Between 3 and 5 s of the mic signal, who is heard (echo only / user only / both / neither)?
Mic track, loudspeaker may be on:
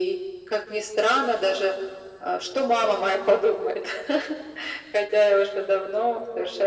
echo only